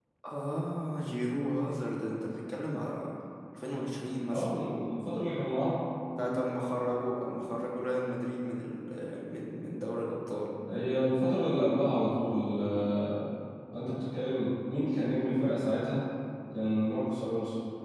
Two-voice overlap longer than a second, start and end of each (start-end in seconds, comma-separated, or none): none